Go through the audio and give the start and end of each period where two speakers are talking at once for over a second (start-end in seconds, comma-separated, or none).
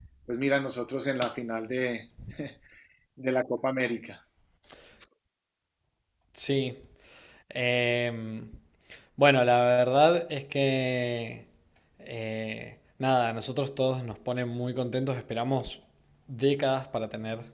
none